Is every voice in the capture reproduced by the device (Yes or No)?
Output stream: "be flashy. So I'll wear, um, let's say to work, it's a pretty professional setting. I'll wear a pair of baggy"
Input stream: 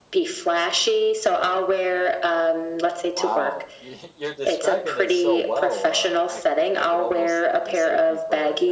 No